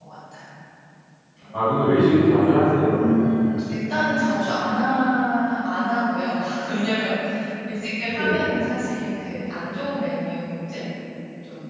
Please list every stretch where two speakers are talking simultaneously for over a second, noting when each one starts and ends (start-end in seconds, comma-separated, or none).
none